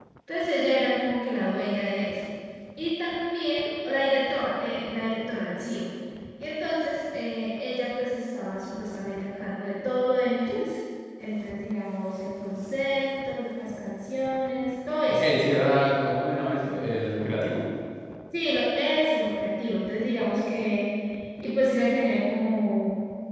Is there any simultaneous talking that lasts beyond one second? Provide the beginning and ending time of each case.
none

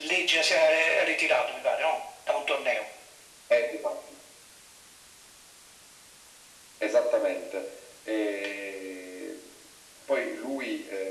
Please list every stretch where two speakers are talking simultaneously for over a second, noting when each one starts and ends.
none

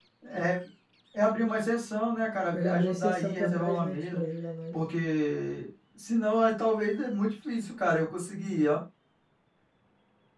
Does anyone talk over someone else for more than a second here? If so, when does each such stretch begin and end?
2.5-4.2

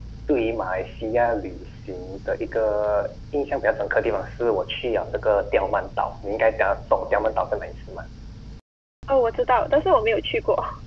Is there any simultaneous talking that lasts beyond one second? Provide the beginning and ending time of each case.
none

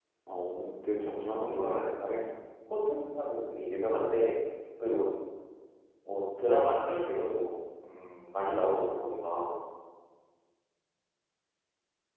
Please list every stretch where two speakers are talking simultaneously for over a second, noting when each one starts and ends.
1.0-2.2

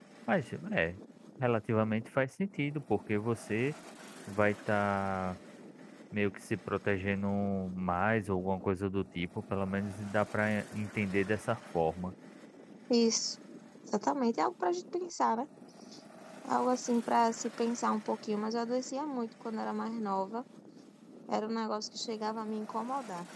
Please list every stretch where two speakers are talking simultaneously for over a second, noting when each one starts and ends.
none

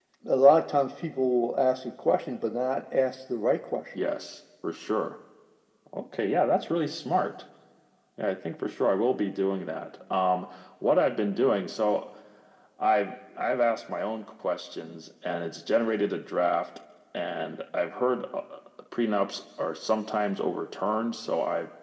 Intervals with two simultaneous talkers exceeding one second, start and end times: none

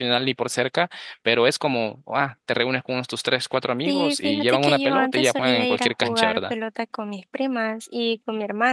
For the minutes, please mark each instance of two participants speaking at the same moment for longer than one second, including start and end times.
3.9-6.5

